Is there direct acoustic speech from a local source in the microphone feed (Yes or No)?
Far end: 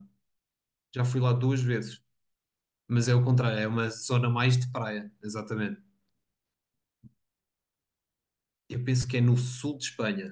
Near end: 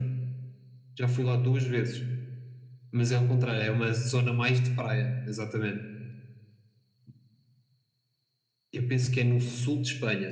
No